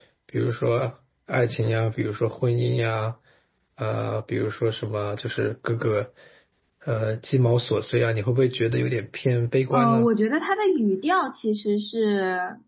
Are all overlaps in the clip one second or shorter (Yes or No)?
Yes